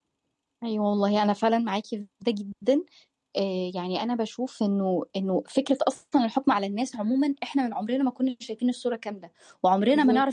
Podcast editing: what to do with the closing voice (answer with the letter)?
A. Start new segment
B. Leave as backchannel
B